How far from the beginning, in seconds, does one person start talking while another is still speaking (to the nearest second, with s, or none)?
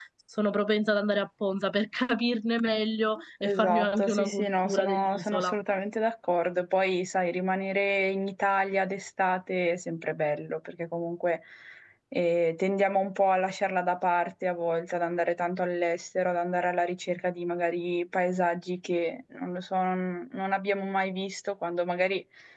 3 s